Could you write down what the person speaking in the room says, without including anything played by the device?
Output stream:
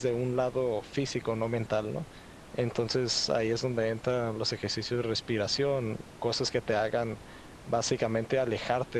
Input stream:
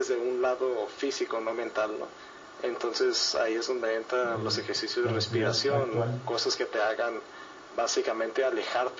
en la sociedad actual

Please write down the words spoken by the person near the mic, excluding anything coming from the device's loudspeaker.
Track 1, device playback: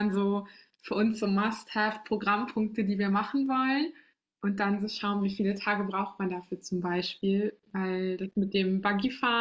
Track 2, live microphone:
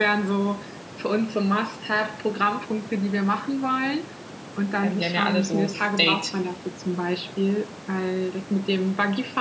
Ähm, die haben ja alle so State

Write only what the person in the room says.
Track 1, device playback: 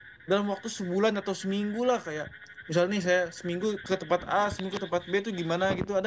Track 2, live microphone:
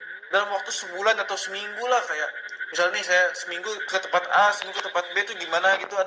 none

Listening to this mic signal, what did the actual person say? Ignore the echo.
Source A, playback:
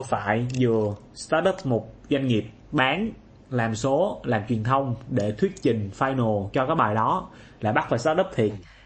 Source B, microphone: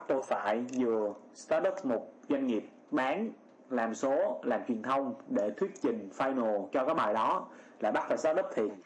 none

